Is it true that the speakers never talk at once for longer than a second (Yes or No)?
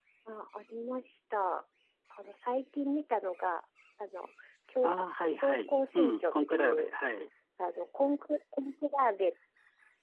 No